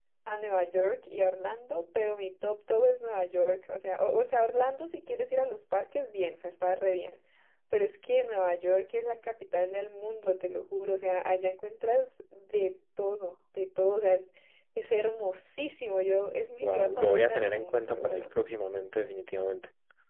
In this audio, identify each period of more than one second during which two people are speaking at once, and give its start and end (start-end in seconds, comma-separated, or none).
16.6-18.2